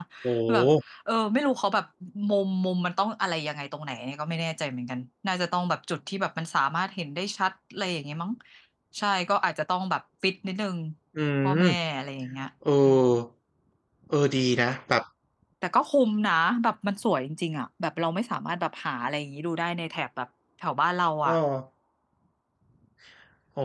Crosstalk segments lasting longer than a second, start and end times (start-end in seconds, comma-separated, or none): none